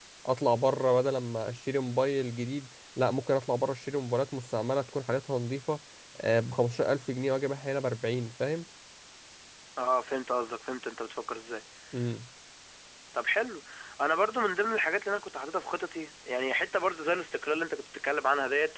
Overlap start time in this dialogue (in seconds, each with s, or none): none